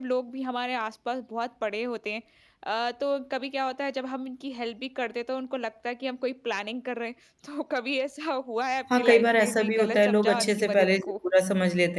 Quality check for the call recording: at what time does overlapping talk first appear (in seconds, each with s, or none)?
8.9 s